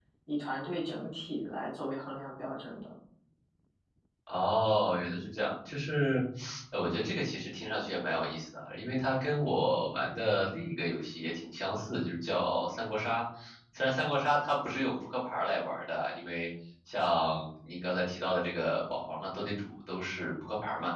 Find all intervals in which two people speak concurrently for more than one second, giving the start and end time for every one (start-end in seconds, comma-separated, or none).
none